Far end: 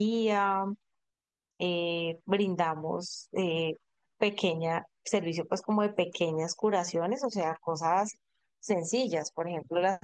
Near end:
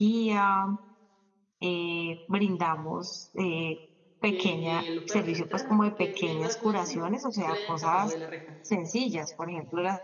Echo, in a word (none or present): present